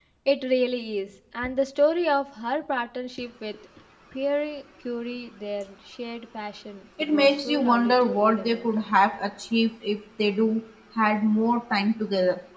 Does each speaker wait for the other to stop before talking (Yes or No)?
No